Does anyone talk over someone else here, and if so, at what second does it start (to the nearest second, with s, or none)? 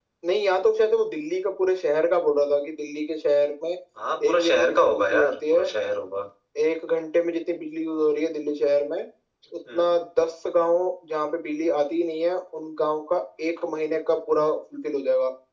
4 s